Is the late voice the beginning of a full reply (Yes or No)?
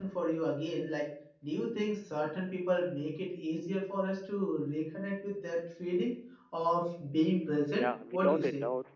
Yes